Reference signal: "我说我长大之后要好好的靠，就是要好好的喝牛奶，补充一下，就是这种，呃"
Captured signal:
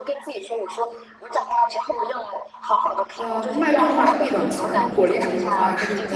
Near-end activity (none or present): present